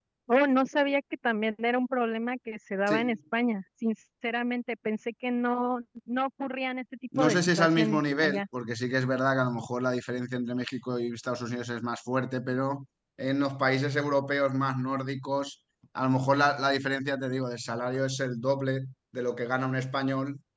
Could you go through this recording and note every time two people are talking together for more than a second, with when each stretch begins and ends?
7.2-8.4

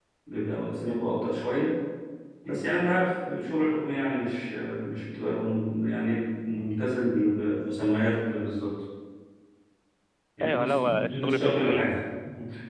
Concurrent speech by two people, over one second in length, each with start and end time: 10.4-12.0

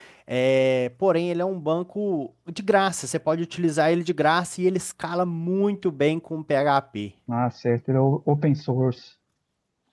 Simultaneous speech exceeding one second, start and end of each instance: none

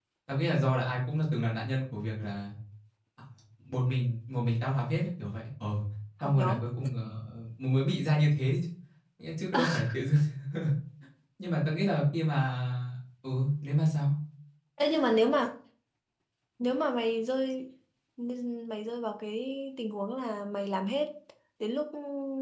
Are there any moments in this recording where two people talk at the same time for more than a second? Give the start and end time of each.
none

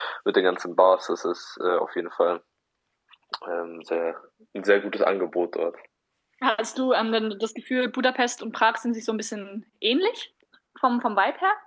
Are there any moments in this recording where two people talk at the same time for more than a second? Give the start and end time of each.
none

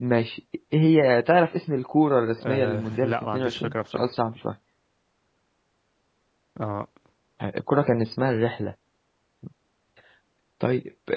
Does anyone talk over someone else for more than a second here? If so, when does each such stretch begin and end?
2.4-4.1

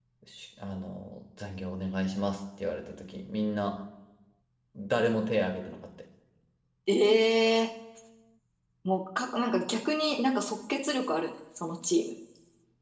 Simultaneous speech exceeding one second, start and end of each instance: none

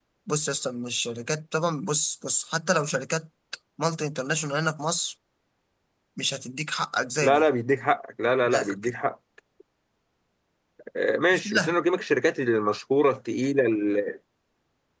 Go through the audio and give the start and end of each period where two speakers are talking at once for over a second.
none

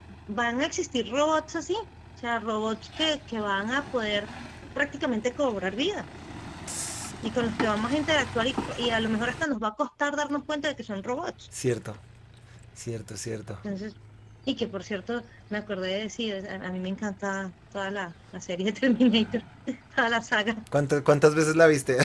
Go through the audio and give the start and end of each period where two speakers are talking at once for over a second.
none

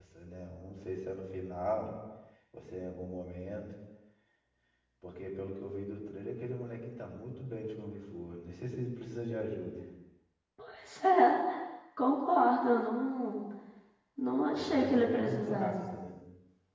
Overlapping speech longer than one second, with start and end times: 14.5-15.7

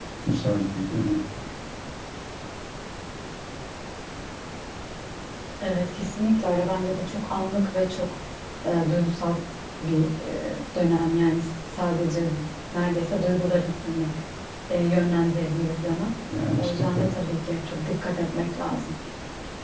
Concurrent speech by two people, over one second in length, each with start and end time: none

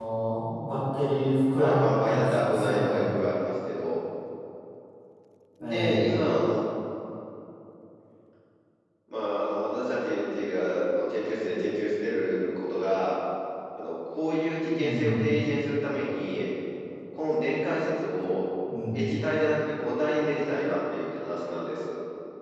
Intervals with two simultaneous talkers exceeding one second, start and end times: 1.6-3.1

